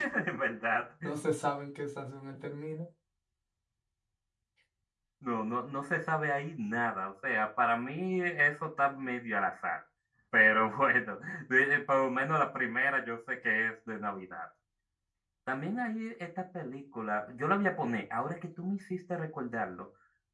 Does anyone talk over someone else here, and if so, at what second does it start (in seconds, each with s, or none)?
none